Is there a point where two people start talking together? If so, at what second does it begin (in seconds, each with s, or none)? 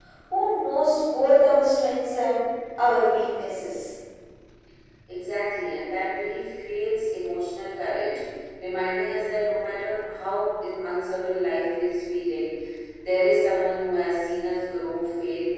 none